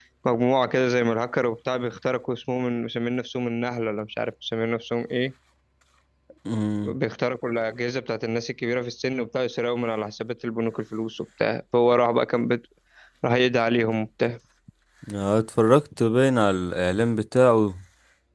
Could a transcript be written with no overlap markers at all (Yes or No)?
Yes